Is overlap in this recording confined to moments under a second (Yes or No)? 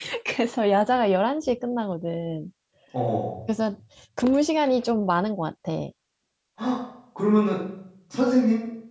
Yes